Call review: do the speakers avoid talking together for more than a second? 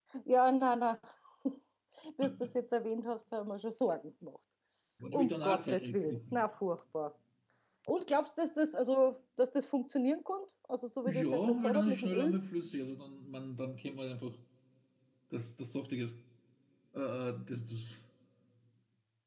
No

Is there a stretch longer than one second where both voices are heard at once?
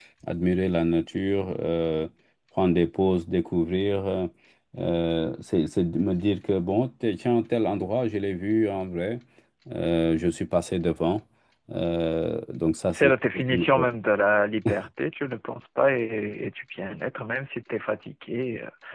No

